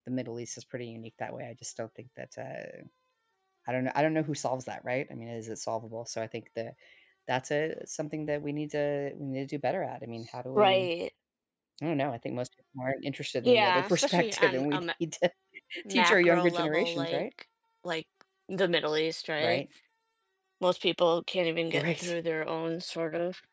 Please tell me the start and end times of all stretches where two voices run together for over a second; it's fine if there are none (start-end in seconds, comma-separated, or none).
13.4-14.8, 15.9-17.2